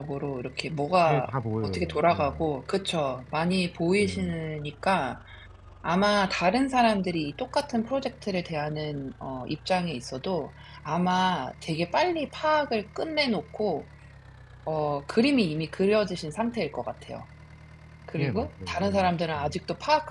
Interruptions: present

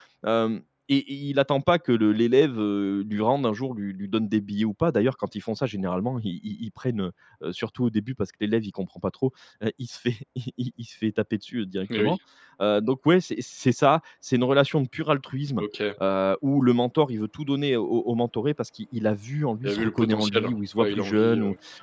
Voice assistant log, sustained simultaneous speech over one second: present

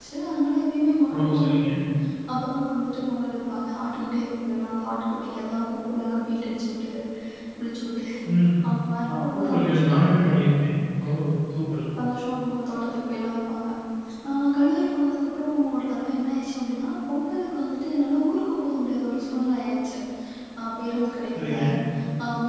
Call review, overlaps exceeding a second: none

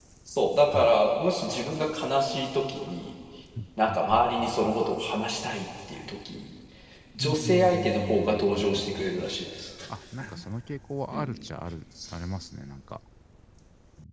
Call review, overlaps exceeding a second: present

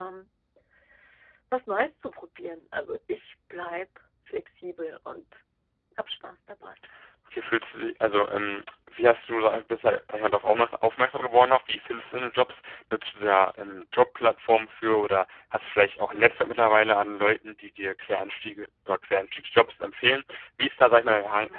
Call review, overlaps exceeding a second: none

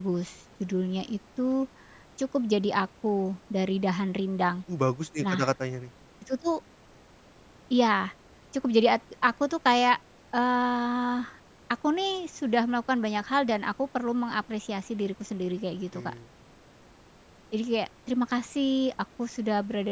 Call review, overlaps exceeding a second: none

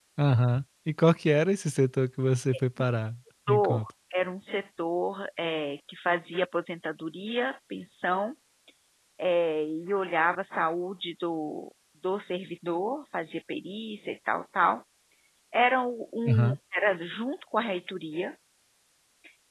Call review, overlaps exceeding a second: none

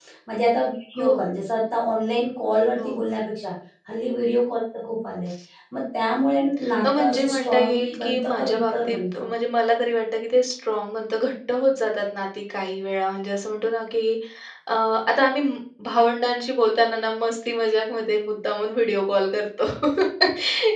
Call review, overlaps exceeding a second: present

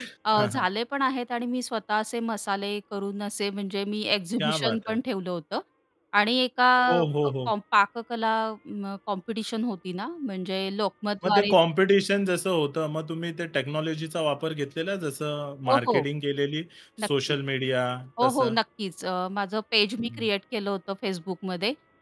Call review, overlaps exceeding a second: none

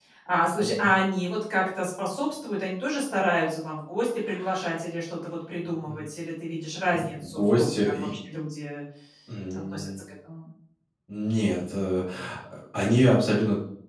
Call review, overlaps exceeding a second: present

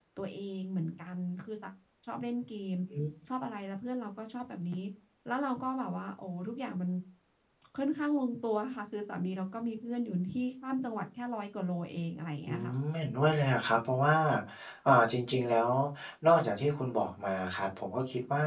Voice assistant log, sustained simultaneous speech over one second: none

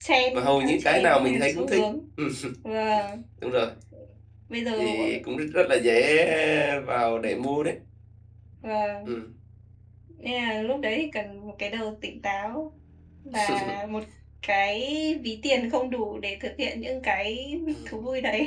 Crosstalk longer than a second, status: present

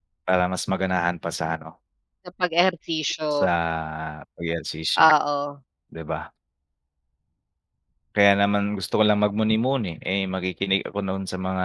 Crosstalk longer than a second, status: none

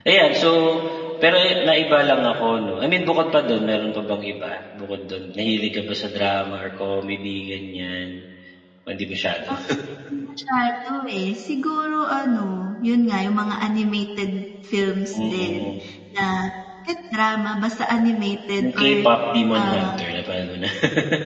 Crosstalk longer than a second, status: none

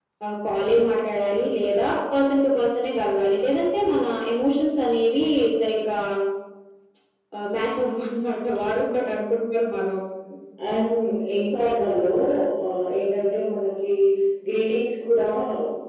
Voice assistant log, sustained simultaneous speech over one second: none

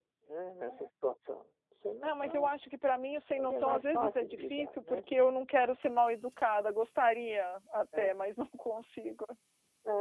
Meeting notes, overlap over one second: present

